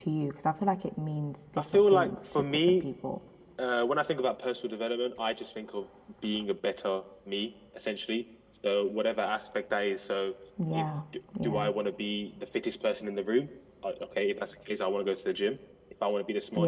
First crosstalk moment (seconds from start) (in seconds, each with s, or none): 1.6 s